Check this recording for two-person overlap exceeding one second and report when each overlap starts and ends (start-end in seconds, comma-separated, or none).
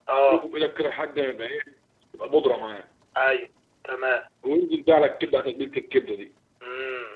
none